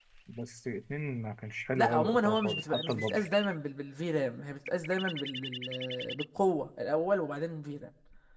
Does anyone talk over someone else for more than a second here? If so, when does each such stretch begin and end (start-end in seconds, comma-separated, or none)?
1.8-3.2